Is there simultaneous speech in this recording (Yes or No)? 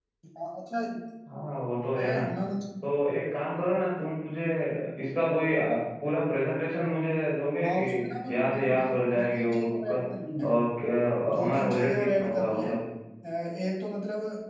Yes